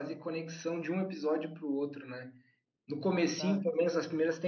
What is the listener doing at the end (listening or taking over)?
listening